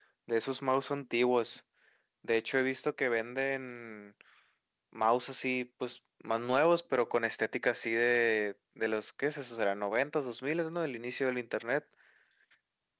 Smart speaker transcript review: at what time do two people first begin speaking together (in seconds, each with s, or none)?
none